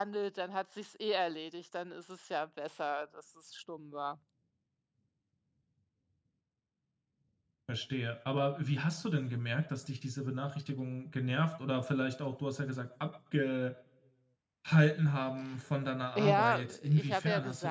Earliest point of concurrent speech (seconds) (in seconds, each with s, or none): 16.2 s